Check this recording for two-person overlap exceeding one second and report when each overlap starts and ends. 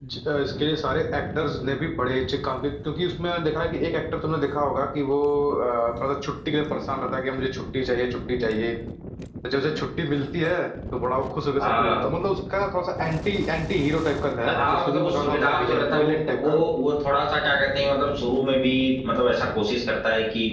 14.5-16.6

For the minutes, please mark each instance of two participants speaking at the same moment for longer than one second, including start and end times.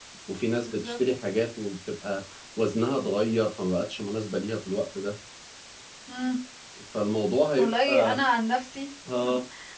none

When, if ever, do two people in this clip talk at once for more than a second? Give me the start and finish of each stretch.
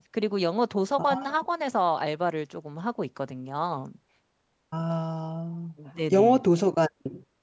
none

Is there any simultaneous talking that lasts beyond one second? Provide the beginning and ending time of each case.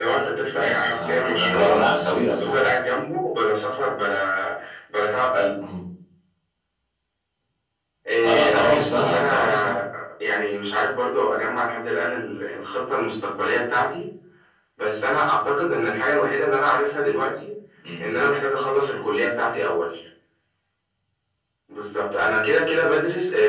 0.5-1.8, 8.2-9.7

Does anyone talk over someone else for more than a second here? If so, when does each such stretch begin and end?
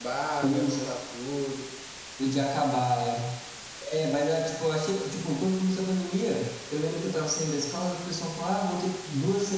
none

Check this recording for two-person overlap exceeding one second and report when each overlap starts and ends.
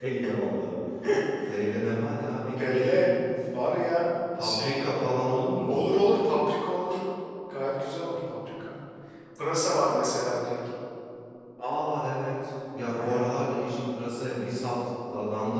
none

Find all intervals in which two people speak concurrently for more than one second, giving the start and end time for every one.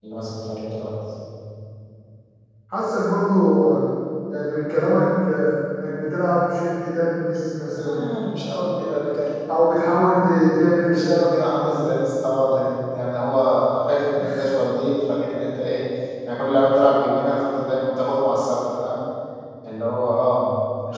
none

